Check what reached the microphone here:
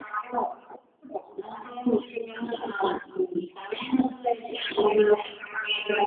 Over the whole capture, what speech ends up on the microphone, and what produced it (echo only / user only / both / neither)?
echo only